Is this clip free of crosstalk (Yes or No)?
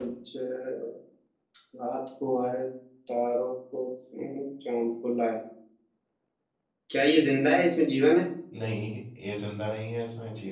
Yes